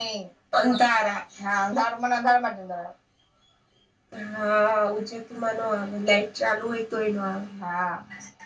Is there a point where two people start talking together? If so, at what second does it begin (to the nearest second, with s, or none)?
none